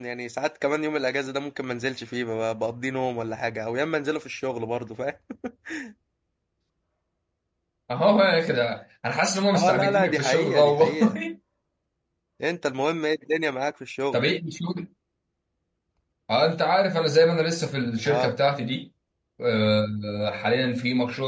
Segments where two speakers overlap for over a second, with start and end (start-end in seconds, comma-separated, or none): 9.5-11.2